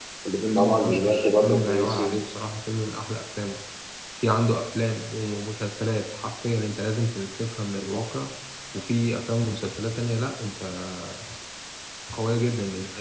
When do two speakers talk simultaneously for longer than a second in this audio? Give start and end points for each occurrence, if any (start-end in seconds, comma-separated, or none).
0.6-2.1